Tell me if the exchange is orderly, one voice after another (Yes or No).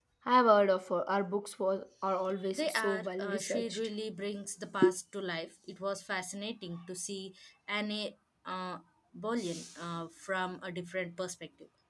No